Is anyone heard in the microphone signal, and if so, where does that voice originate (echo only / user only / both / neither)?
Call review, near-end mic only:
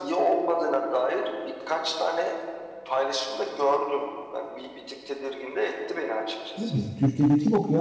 both